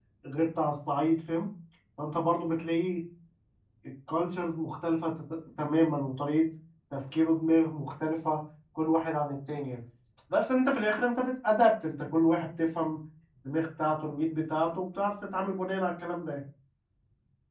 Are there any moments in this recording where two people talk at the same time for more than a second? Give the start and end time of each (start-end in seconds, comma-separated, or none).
none